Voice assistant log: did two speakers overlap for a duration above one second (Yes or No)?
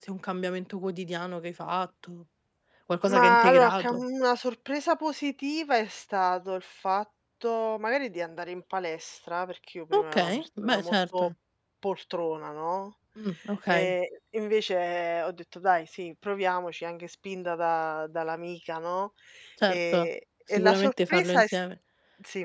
Yes